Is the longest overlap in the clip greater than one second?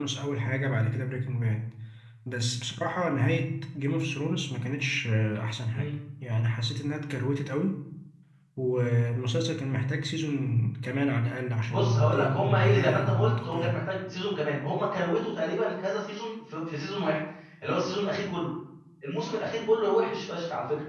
Yes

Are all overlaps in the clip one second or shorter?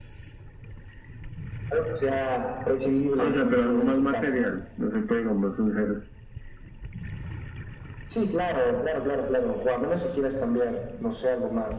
No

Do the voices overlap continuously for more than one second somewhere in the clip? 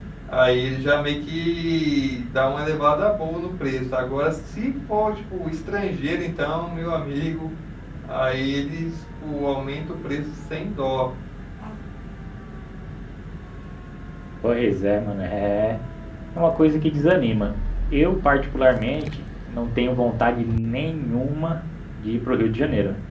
No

